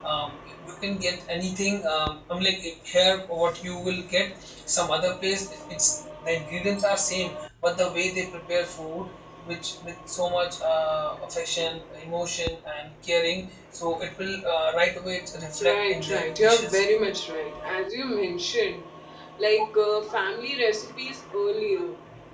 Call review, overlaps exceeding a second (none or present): present